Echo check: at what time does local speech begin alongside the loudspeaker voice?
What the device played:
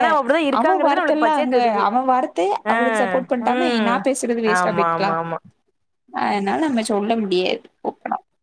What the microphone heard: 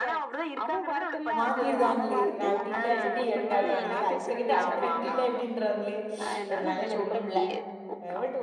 1 s

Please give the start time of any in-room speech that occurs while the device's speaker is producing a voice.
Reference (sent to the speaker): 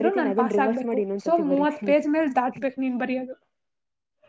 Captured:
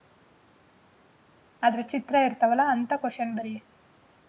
2 s

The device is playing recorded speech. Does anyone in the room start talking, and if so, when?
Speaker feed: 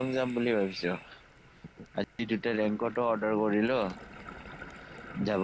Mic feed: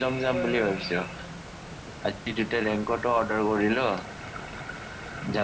0 s

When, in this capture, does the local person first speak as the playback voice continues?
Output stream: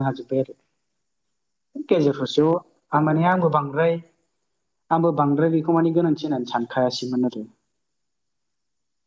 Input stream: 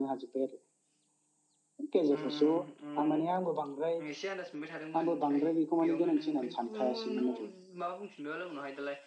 2 s

